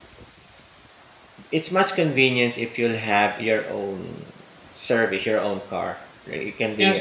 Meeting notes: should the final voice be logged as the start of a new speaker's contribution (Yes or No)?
Yes